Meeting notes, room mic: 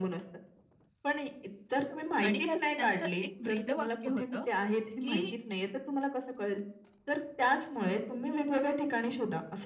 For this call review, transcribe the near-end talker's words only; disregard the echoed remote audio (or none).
आणि त्यात त्यांचं एक ब्रीदवाक्य होतं की